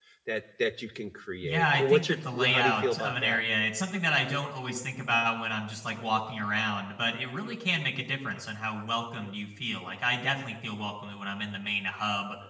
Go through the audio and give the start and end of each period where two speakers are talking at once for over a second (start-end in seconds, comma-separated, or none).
1.4-3.4